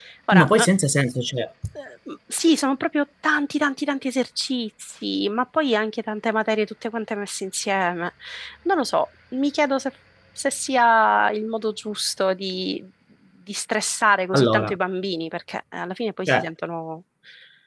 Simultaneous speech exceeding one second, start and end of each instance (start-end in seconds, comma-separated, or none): none